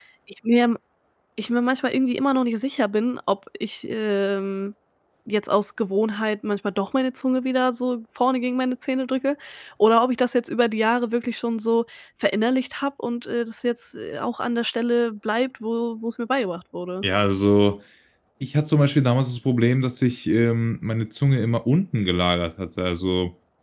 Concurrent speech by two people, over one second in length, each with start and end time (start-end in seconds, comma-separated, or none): none